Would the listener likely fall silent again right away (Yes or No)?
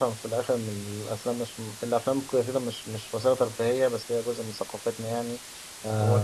No